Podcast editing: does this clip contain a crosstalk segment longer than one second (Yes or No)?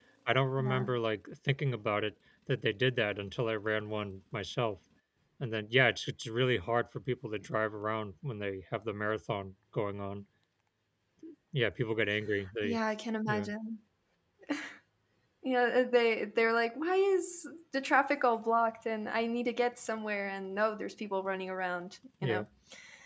No